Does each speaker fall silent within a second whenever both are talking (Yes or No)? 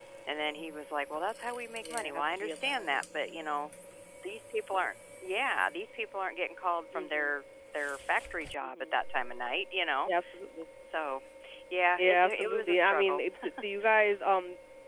No